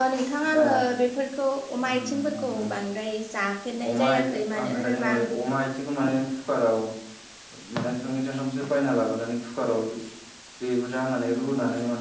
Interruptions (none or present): present